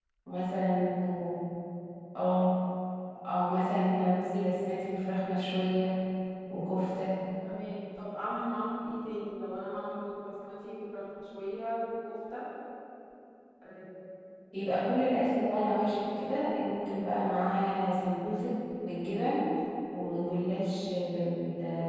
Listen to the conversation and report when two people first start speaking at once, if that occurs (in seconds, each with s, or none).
none